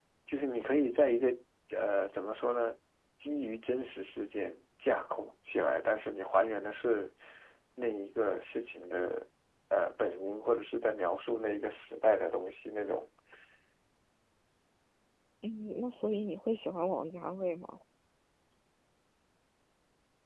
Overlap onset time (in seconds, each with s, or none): none